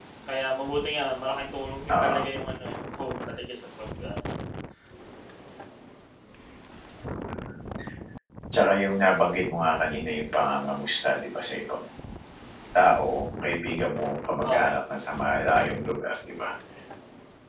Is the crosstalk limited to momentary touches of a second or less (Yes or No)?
Yes